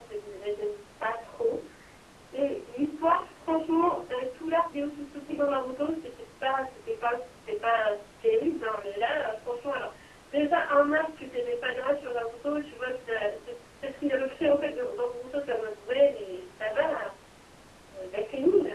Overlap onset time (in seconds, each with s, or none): none